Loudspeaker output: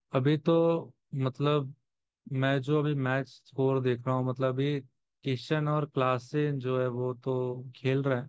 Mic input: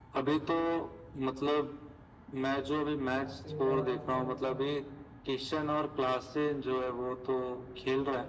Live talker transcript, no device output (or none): आगे क्या होता है इनका